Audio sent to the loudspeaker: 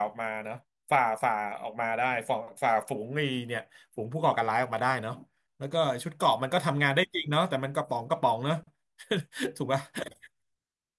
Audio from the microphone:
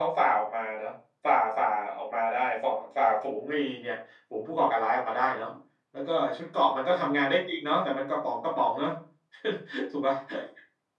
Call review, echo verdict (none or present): present